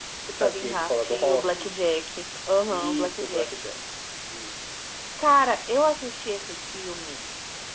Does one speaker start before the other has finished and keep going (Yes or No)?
Yes